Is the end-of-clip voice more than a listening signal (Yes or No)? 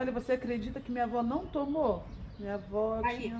No